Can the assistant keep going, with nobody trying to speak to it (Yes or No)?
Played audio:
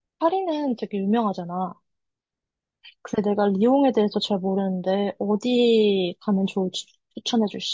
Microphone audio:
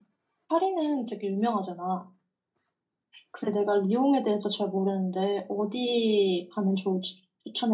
Yes